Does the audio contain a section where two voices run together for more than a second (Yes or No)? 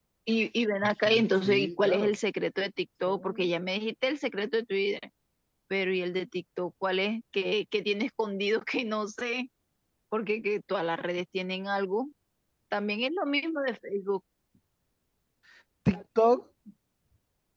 Yes